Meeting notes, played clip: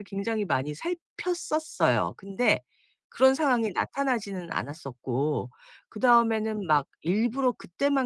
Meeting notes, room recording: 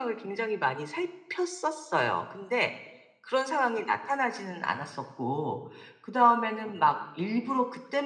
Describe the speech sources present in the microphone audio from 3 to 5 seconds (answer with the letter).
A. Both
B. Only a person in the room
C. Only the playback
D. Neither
C